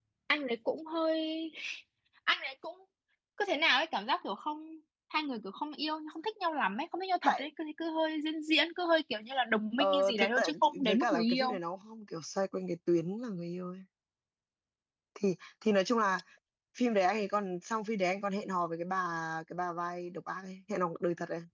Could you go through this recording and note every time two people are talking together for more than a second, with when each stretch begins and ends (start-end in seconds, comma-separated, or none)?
9.8-11.6